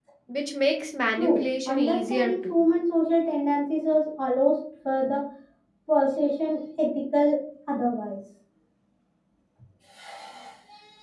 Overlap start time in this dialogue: 1 s

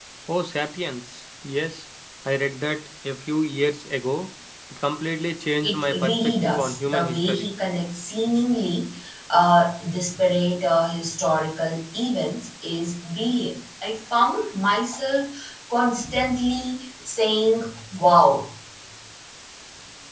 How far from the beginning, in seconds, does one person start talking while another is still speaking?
6 s

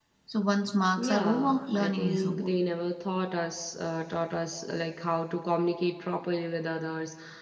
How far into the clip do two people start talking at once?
1 s

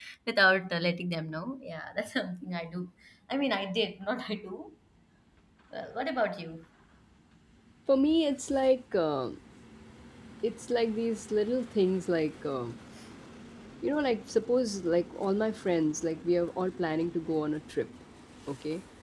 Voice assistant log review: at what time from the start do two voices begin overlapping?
none

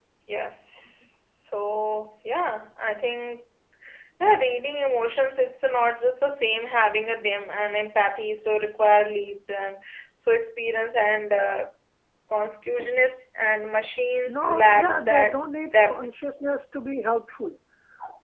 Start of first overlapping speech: 14 s

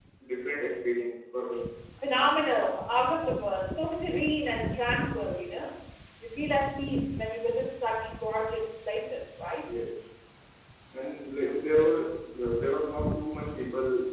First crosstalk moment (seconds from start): none

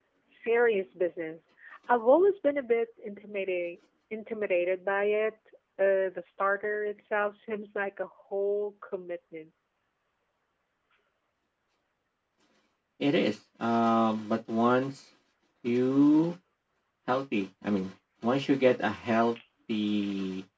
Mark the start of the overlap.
none

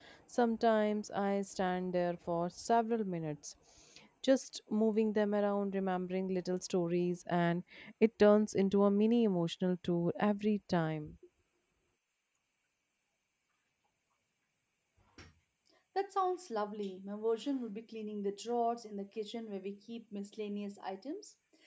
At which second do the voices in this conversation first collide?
none

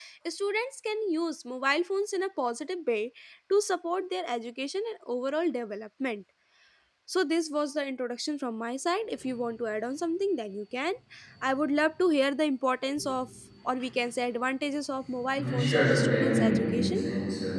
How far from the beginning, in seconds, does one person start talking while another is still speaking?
15 s

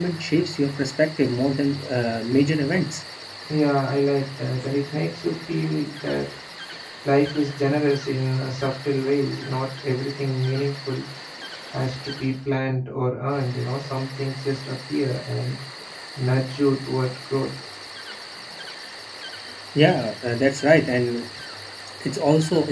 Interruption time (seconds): none

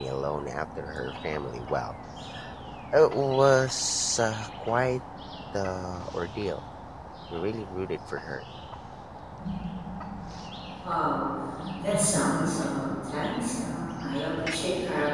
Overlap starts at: none

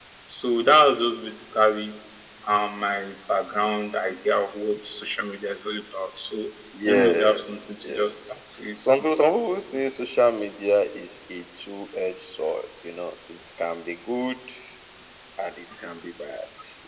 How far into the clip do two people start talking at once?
7 s

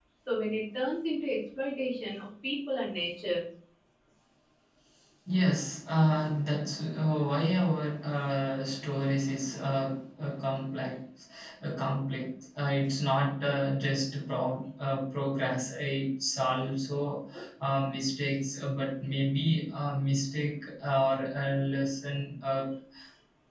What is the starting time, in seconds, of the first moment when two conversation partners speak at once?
none

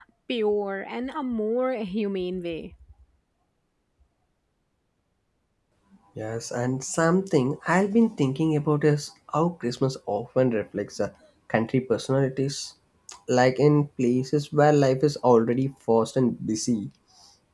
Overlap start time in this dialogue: none

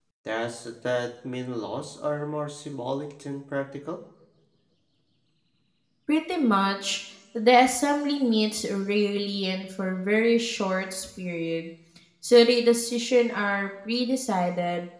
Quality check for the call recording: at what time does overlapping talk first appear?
none

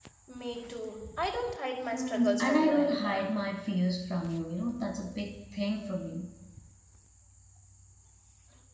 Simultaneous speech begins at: 2 s

